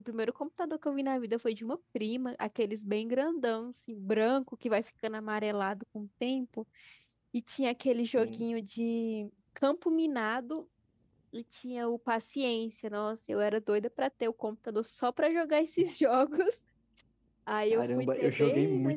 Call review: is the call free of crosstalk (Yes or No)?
No